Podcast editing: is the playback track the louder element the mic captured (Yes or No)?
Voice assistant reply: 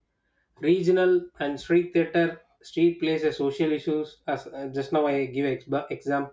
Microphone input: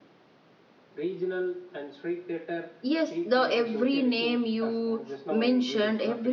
No